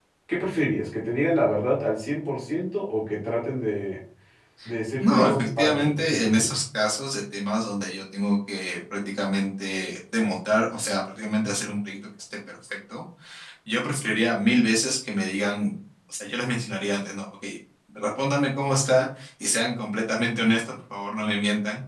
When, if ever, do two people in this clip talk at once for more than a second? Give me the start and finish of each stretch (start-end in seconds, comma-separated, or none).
5.0-6.6